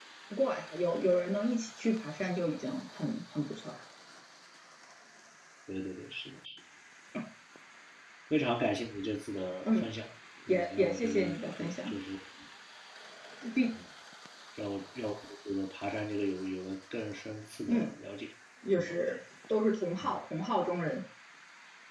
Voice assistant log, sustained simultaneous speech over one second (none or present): present